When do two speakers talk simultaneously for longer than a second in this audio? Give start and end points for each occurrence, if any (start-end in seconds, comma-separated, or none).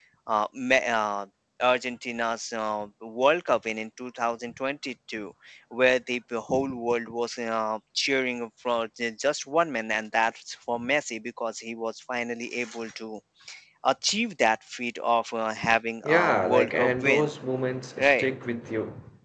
16.1-17.3